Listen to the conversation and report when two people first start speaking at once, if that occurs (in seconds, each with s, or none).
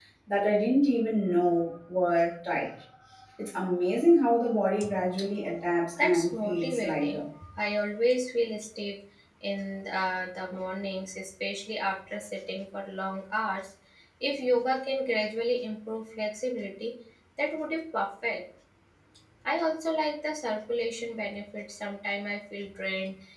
6.0 s